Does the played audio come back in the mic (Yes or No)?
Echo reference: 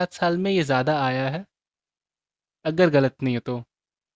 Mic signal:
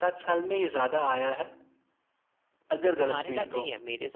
Yes